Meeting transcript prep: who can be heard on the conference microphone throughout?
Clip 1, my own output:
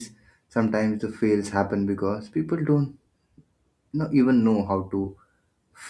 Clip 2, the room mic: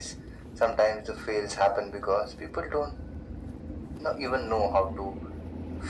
echo only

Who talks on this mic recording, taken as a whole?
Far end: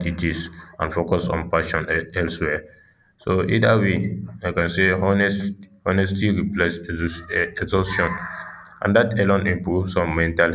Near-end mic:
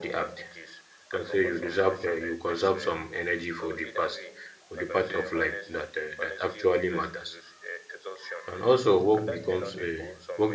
both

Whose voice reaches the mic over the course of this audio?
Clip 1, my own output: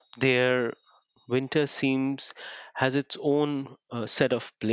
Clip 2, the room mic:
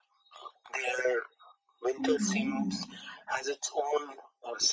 both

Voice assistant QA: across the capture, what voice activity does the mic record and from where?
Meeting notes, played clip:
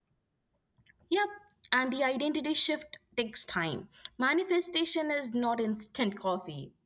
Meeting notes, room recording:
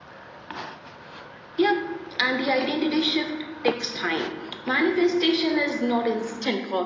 echo only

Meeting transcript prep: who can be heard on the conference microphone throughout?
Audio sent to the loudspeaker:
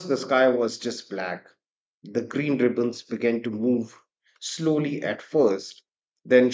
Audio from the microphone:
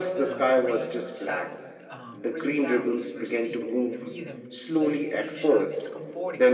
both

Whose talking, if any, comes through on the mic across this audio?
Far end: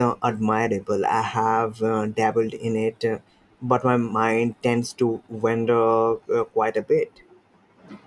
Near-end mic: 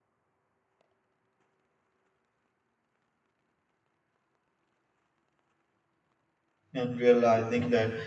user only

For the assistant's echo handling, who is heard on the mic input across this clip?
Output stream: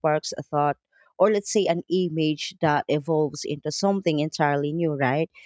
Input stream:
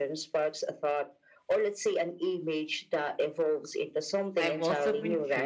both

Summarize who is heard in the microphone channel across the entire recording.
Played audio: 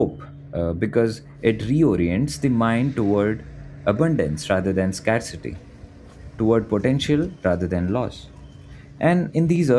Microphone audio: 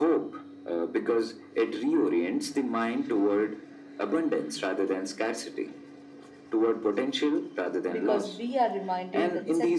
both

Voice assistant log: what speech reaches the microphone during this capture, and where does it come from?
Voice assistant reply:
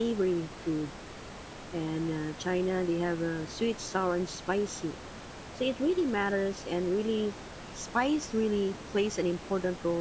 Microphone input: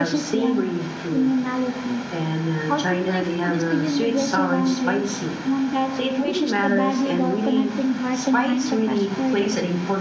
both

